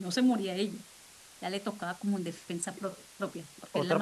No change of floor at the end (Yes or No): No